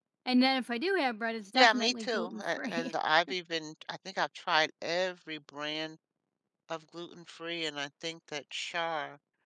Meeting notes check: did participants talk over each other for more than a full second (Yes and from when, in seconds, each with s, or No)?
Yes, from 1.5 s